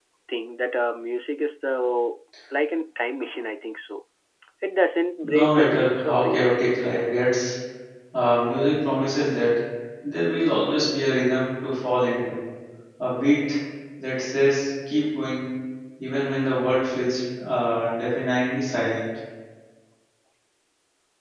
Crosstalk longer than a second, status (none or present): present